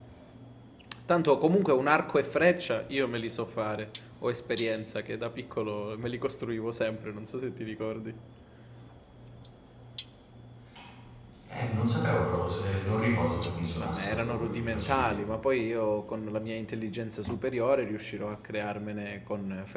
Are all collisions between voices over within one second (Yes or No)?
No